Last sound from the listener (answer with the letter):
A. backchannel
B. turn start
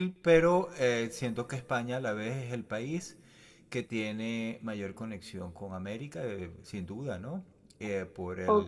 B